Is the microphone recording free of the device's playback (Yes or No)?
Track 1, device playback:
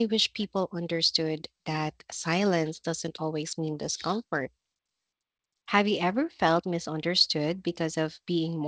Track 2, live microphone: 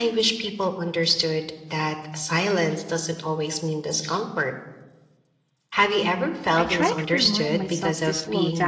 No